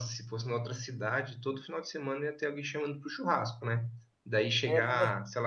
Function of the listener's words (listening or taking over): listening